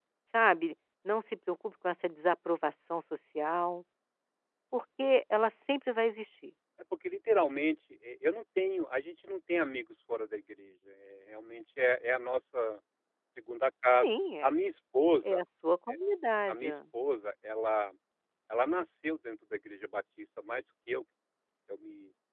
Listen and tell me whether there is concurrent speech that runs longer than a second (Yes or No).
No